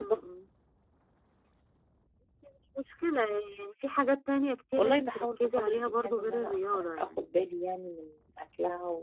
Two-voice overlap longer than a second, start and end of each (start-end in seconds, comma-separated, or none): 4.8-7.2